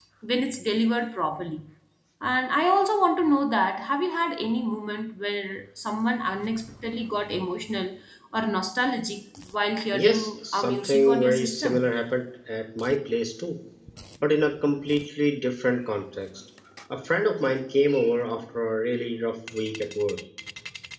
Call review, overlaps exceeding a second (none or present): present